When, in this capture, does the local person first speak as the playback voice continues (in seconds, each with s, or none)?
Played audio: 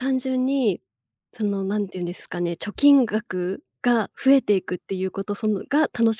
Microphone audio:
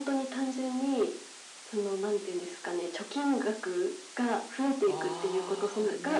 4.8 s